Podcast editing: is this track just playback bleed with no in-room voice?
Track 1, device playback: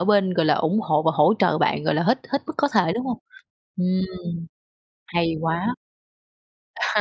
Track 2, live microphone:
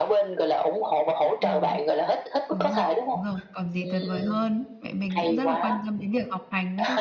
No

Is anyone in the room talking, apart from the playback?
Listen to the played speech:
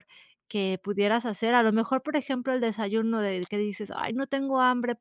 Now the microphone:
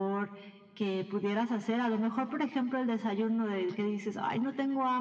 No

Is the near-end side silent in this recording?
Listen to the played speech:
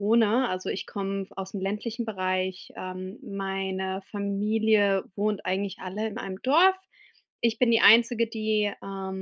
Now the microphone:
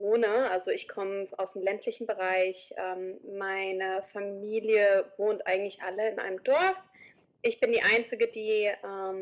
Yes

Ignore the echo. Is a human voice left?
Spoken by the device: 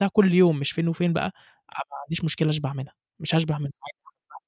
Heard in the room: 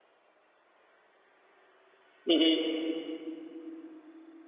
Yes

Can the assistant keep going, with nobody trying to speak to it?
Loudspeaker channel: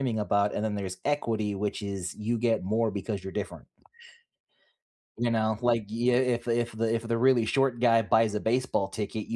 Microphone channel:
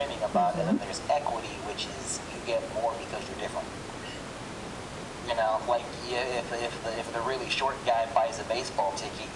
No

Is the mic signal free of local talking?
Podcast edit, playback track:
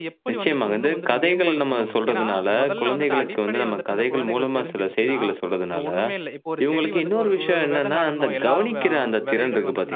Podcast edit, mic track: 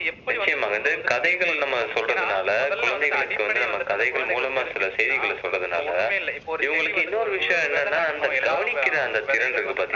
Yes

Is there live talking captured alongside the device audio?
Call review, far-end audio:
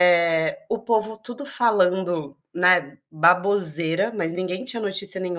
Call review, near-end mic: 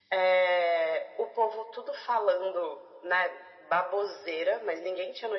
No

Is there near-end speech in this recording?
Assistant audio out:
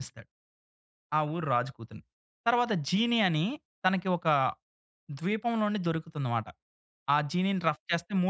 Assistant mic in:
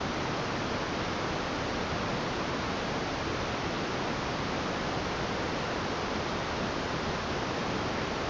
No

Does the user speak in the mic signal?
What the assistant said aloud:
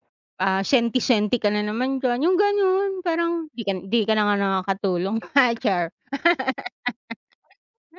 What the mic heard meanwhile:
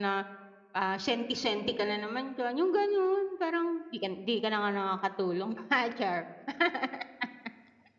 No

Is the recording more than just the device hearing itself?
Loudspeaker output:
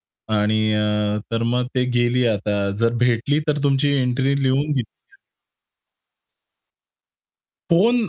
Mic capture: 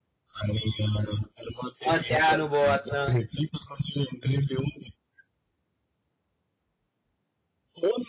Yes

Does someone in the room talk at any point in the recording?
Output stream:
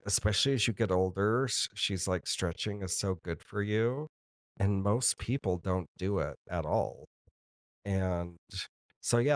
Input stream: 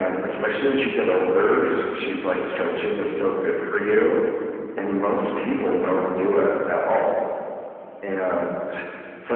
No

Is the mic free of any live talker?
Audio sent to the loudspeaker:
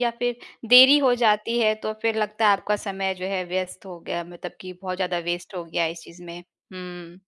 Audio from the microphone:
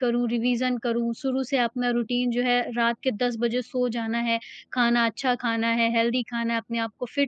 No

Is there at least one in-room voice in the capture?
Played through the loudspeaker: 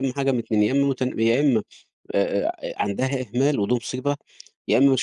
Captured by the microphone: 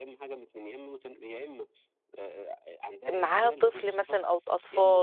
Yes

